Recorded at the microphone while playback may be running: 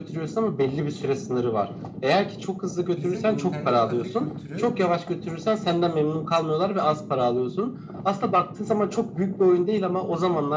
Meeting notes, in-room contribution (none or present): present